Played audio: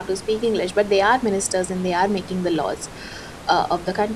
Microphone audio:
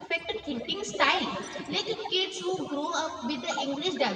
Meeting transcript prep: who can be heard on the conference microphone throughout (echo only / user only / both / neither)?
both